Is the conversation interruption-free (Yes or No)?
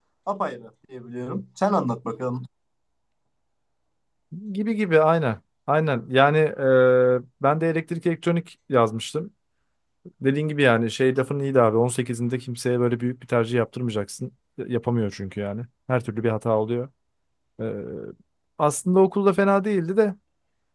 Yes